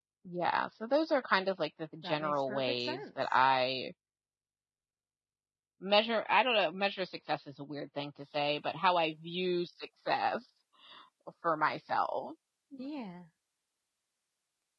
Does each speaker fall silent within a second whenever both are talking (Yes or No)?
No